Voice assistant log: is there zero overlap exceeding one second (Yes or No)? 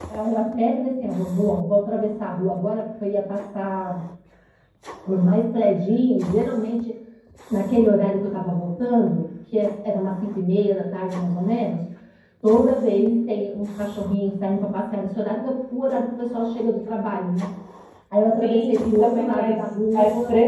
No